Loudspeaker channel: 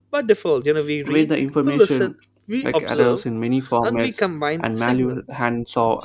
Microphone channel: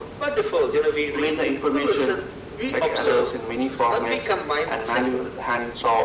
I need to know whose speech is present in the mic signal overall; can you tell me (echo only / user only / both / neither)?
echo only